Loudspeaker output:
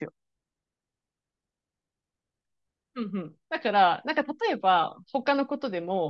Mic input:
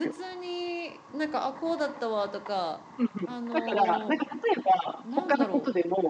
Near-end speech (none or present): present